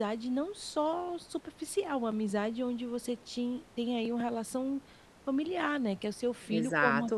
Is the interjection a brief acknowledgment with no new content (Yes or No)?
No